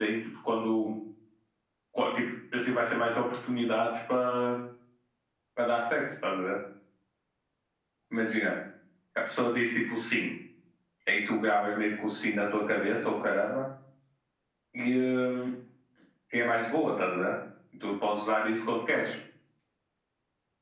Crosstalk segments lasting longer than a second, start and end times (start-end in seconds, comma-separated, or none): none